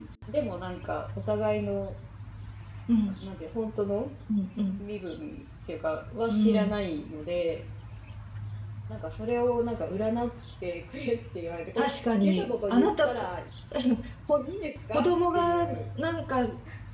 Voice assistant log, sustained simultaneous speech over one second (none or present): present